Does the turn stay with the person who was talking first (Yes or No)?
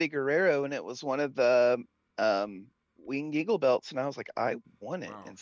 No